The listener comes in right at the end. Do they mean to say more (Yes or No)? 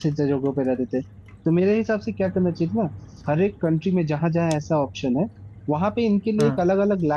No